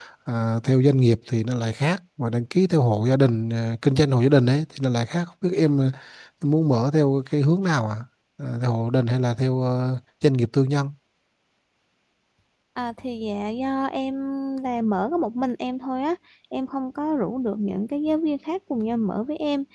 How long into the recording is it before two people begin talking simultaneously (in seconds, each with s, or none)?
none